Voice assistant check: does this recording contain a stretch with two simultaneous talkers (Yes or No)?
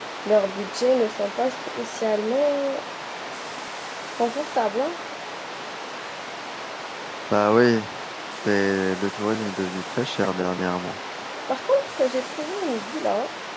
No